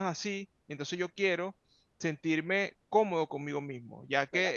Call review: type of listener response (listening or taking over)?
taking over